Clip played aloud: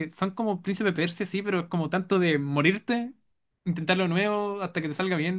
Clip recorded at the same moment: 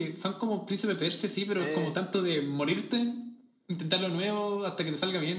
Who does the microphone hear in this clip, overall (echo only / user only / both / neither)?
both